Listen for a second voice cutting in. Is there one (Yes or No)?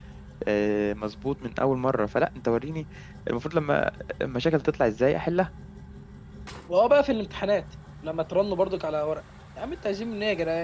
No